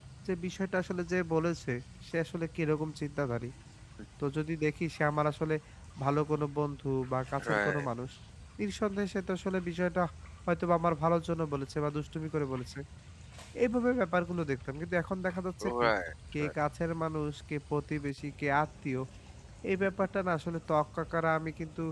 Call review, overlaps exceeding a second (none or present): none